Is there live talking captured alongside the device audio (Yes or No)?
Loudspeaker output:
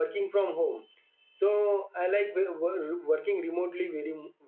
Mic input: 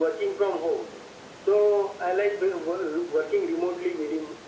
No